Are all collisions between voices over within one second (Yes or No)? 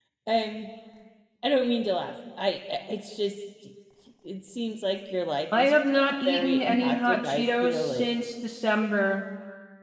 No